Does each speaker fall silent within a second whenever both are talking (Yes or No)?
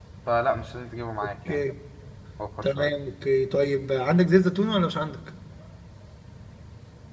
Yes